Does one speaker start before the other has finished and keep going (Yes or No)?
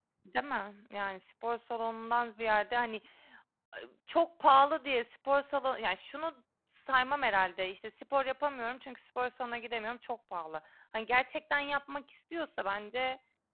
No